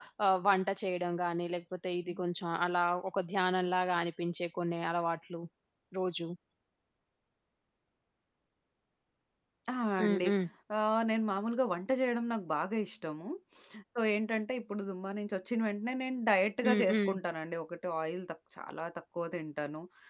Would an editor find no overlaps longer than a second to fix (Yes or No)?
Yes